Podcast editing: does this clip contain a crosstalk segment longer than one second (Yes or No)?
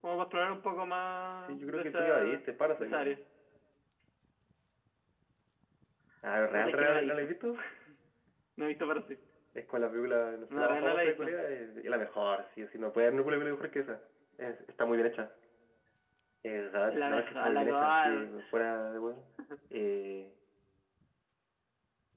Yes